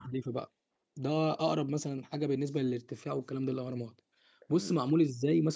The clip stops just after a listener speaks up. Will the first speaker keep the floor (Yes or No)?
Yes